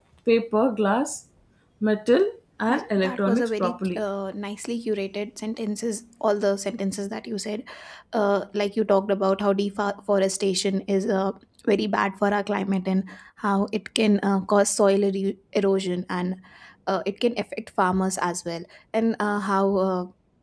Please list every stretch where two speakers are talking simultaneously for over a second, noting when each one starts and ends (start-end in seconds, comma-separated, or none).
2.7-4.0